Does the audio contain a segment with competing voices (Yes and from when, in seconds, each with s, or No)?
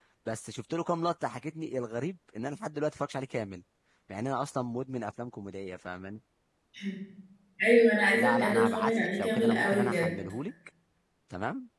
Yes, from 8.1 s